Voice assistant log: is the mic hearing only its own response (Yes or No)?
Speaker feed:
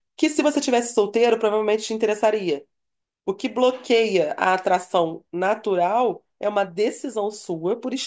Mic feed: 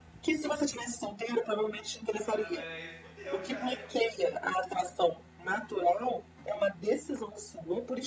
No